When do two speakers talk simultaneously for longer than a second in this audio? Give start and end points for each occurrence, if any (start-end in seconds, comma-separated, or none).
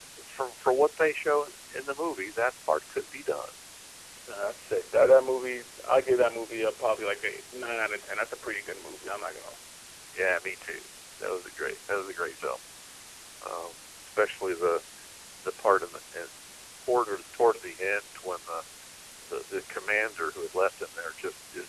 none